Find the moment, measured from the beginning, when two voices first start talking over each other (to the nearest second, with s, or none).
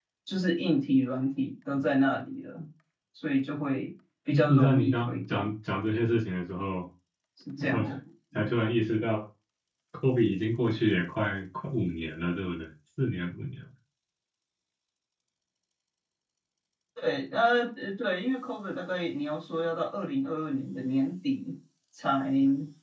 4 s